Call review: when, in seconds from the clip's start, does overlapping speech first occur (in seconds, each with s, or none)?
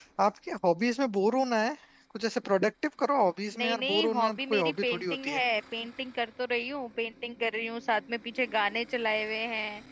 3.5 s